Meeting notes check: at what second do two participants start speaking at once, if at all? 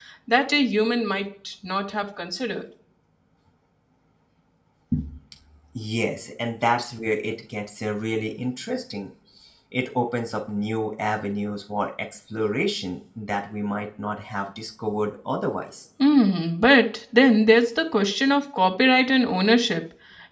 none

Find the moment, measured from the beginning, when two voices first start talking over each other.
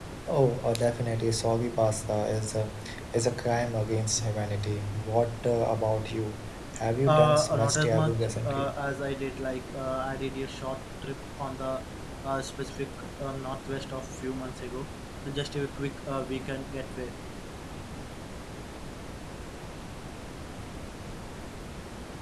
7.1 s

